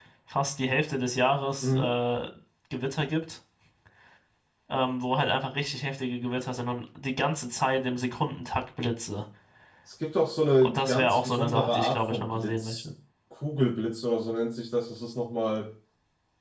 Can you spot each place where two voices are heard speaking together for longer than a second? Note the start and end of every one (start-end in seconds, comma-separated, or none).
10.6-12.8